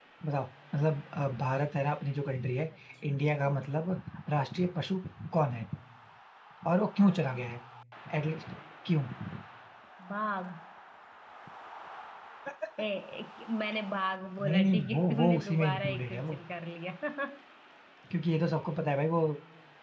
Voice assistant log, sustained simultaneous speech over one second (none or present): present